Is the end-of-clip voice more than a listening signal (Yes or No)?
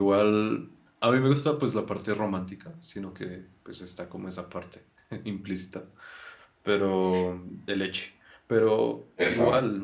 No